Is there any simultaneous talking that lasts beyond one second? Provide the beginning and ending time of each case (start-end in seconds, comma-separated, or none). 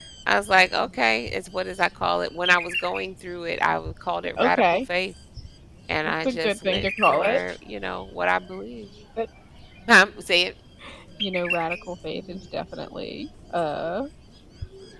6.0-7.4